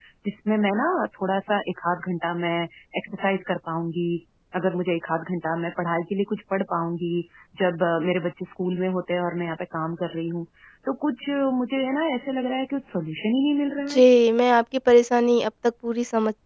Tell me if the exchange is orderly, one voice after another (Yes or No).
Yes